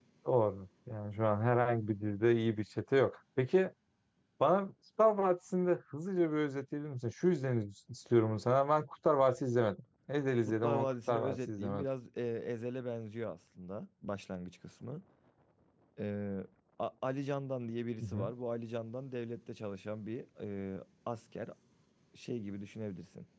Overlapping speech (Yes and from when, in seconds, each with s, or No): Yes, from 10.4 s